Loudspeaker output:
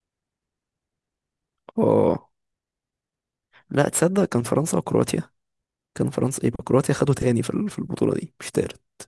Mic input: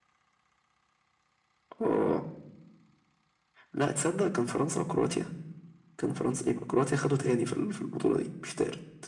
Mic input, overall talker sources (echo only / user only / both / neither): echo only